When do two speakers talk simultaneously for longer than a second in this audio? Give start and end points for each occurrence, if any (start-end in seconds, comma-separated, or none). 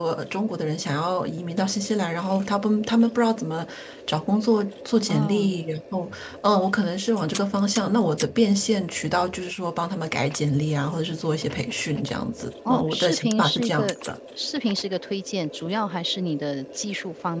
12.7-13.9